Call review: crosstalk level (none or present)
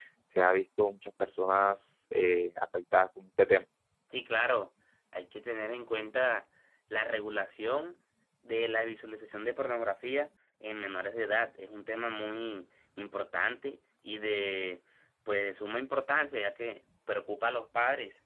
none